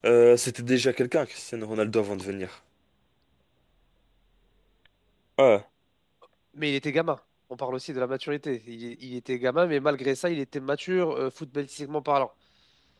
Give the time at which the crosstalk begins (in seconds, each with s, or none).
none